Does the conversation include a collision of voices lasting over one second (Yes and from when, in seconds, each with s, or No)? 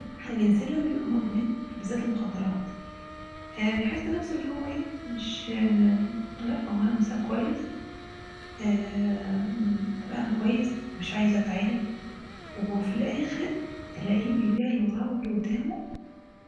No